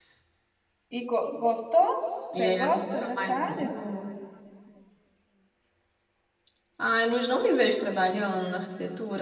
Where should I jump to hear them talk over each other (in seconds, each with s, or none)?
2.3 s